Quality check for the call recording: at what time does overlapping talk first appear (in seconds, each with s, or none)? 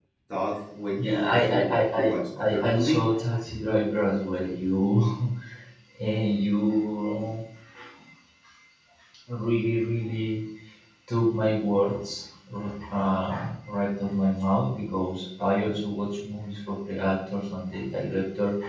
1.0 s